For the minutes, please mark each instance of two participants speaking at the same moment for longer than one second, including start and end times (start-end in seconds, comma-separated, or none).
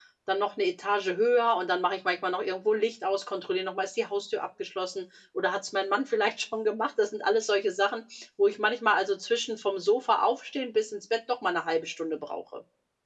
none